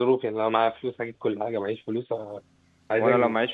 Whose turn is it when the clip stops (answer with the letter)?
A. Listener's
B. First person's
A